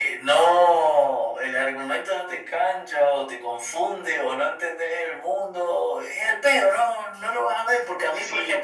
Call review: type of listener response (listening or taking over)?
taking over